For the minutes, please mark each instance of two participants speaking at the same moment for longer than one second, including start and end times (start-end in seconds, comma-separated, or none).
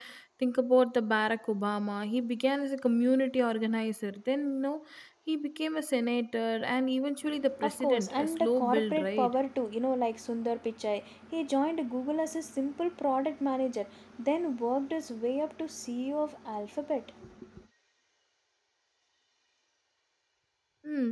7.6-9.3